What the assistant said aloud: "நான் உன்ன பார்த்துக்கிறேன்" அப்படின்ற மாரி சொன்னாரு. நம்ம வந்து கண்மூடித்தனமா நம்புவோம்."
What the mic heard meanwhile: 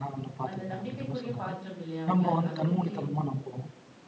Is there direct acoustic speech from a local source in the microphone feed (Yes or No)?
Yes